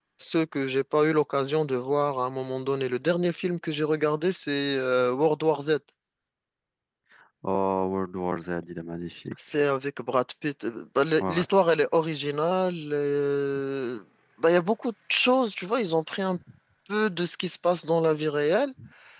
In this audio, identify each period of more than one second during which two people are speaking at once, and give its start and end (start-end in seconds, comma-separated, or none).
none